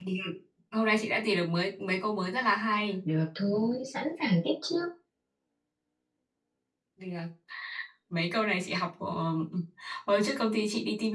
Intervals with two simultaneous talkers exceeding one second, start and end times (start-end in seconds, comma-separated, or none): none